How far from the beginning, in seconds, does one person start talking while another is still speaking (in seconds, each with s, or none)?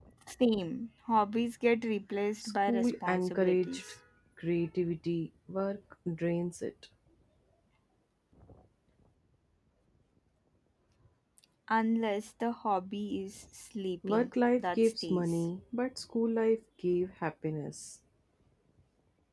2.4 s